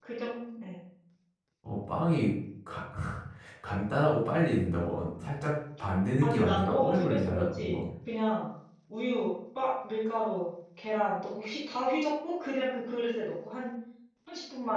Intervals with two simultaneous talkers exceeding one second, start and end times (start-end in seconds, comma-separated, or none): 6.2-7.8